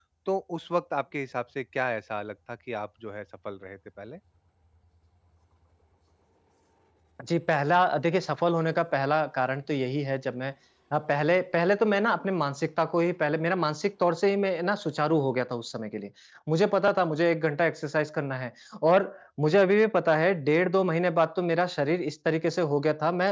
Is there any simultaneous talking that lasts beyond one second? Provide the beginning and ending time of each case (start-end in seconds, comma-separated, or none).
none